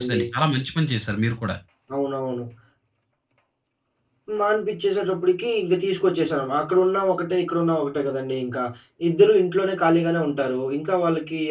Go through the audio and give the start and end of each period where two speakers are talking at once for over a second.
none

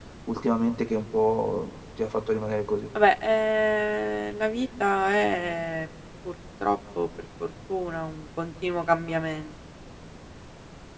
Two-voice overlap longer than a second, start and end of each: none

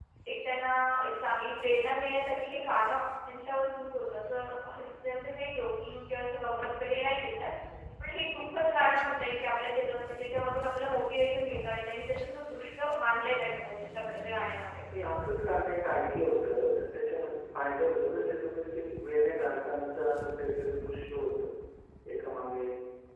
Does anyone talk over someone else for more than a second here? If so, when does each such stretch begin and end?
none

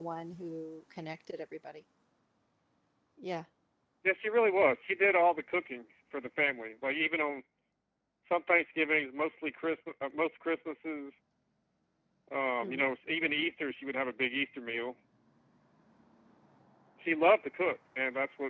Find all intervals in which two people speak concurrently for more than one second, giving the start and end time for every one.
none

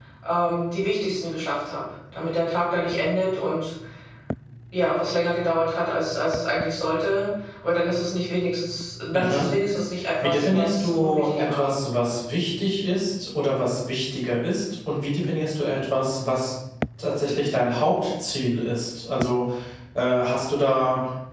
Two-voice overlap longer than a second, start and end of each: 10.2-11.7

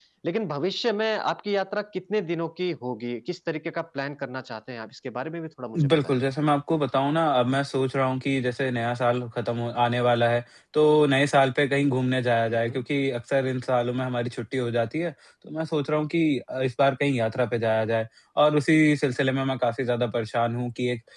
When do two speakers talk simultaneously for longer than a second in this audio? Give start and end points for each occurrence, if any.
none

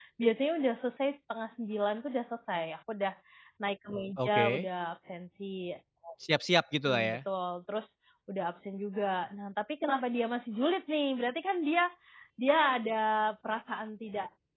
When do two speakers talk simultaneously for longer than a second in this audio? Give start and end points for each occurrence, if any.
none

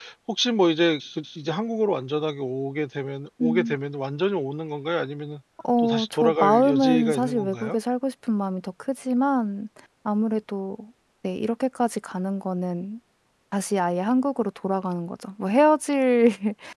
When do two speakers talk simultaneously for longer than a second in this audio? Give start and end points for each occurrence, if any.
5.8-7.8

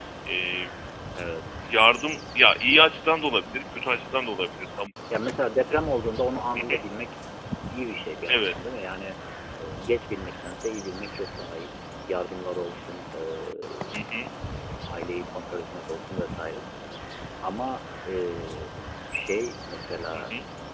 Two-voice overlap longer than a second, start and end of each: none

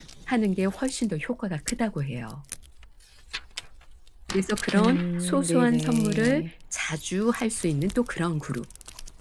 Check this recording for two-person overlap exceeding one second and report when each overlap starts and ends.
4.7-6.5

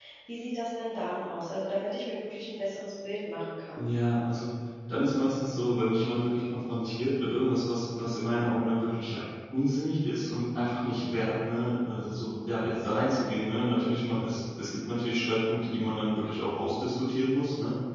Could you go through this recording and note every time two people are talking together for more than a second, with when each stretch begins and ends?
none

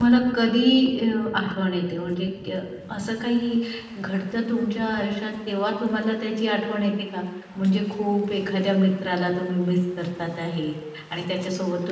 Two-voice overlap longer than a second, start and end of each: none

